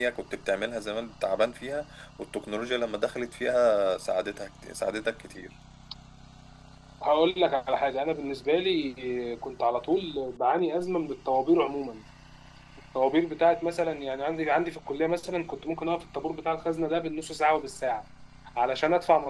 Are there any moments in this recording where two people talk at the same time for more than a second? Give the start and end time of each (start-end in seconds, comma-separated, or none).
none